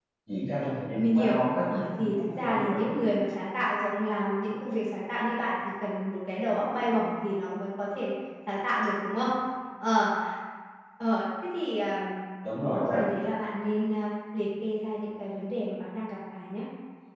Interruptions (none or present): present